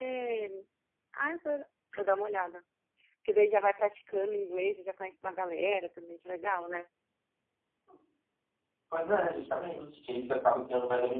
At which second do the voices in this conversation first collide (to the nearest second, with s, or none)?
none